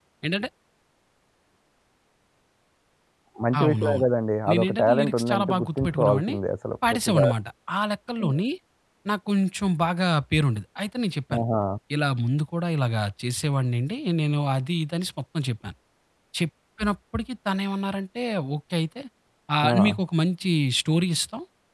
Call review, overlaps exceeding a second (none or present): present